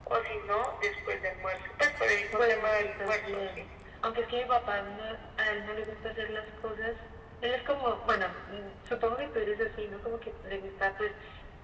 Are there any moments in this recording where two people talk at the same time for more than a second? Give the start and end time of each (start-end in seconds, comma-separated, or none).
2.3-3.7